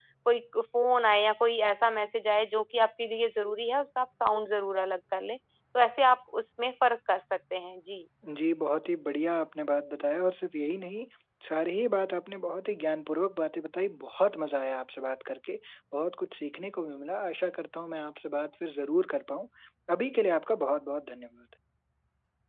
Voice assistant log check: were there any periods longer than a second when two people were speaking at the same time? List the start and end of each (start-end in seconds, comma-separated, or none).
none